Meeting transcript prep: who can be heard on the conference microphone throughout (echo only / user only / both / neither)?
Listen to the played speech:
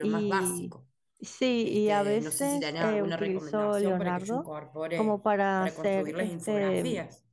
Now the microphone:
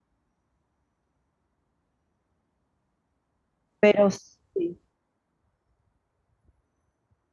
user only